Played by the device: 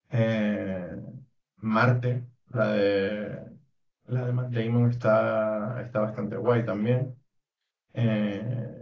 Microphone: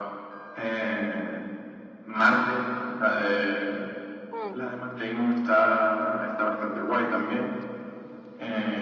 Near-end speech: present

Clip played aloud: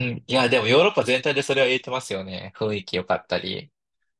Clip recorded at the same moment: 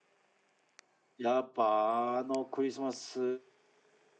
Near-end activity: present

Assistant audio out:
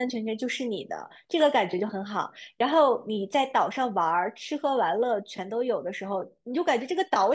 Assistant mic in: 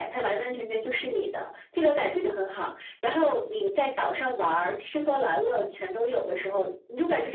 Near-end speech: none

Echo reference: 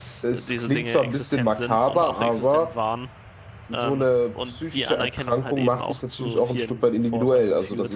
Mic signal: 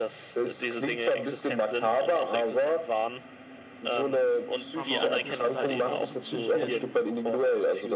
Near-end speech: present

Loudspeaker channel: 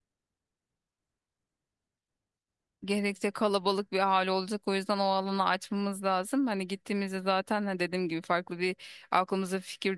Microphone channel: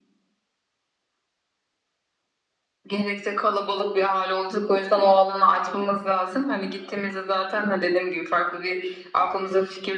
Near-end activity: none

